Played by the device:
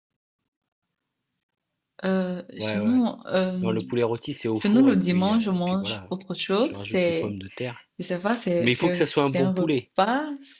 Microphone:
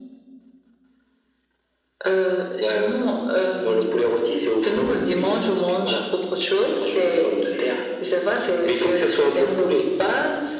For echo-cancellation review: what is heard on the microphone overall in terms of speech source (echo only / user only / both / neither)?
echo only